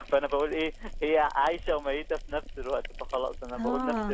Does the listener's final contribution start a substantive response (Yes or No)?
Yes